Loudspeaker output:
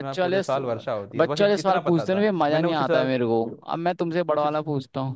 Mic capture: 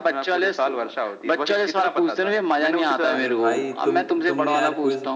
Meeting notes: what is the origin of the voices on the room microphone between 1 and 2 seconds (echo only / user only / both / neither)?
echo only